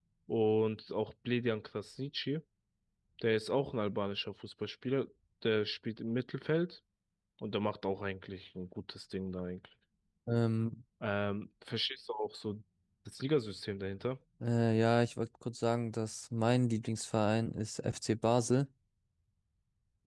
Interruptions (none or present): none